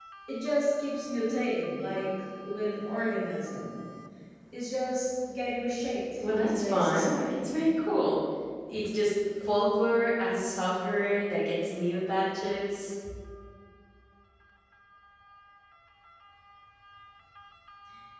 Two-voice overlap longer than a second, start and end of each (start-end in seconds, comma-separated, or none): 6.2-7.5